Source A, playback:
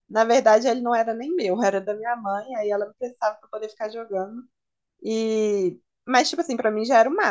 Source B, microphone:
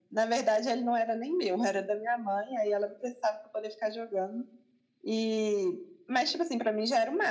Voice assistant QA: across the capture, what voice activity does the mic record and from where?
echo only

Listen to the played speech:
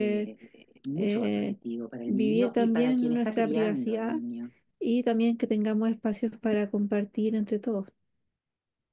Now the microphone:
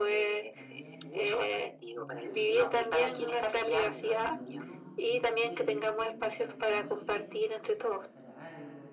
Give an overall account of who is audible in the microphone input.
both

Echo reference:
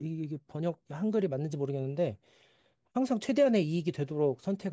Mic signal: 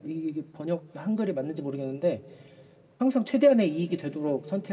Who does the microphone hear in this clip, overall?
echo only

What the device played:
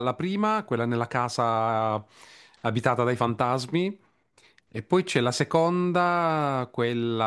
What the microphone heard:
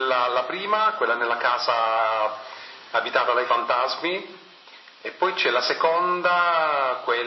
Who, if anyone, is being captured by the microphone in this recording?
echo only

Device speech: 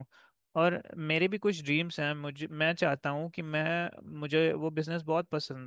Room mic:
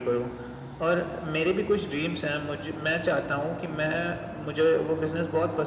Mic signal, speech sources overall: echo only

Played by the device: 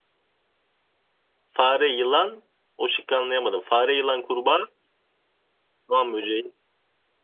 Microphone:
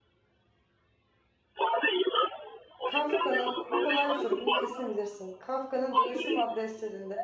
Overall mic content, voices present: both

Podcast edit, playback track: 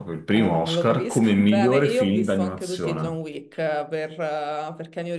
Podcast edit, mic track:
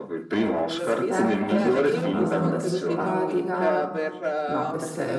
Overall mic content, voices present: both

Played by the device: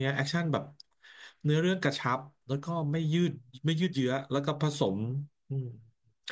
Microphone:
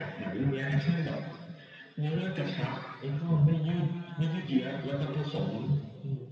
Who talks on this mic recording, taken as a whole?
both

